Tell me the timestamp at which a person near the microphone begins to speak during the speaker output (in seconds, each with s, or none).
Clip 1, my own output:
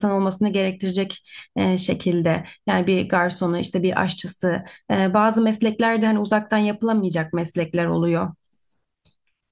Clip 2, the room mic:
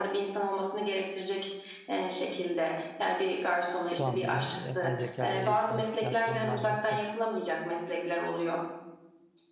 3.8 s